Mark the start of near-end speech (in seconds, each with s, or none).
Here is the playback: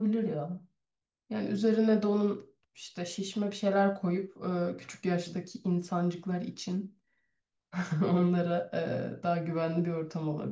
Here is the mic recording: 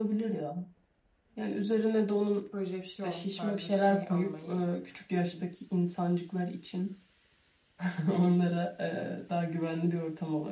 2.5 s